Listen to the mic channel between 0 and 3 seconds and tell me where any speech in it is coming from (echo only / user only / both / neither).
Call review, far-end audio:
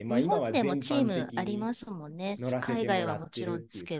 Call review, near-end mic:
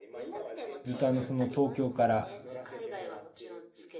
both